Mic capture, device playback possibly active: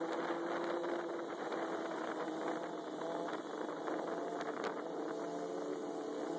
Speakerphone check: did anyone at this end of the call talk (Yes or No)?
No